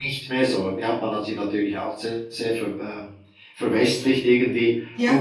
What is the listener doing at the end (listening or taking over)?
listening